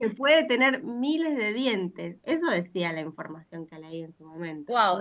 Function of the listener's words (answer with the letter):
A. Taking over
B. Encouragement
A